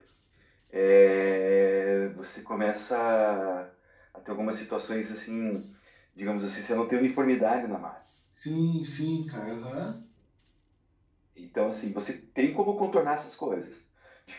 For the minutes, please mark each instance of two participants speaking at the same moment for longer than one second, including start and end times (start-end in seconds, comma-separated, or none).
none